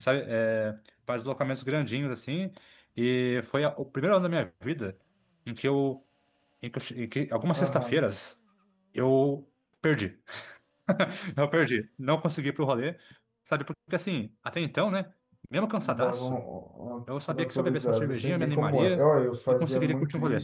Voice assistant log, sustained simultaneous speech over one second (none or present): present